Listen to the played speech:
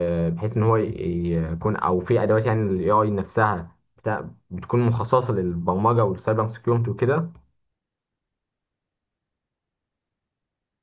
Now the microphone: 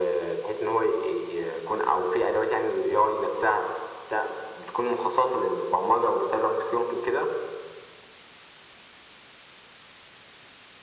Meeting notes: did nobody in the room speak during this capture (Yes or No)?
Yes